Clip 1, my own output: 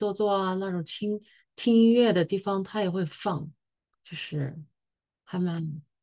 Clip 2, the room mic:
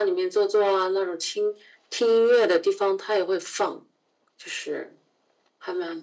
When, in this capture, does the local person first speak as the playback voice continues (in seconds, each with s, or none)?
none